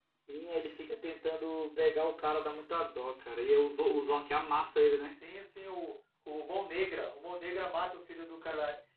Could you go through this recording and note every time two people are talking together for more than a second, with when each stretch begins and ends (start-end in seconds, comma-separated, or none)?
none